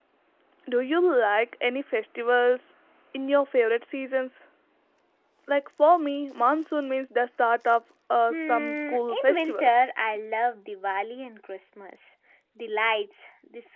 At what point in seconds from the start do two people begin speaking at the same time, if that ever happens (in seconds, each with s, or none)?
8.3 s